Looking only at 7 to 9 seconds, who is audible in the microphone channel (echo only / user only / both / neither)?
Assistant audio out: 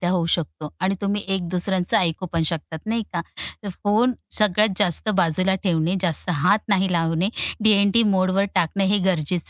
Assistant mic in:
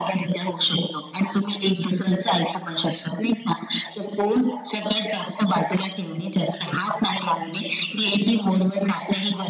echo only